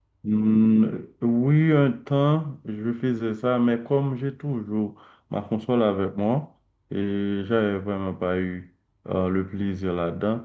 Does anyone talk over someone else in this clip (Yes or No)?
No